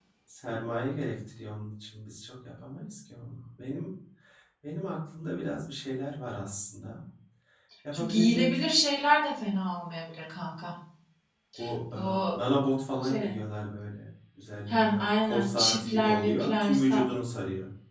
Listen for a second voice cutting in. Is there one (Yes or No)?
Yes